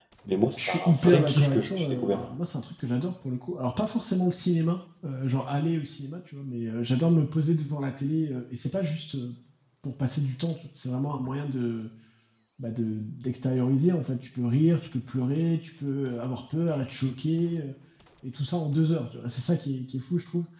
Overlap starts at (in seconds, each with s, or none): 0.6 s